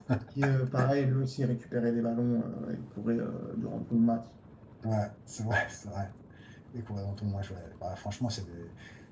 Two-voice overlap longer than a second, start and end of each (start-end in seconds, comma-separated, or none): none